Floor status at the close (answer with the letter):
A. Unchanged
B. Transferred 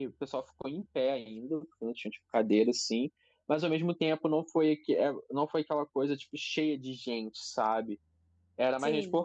A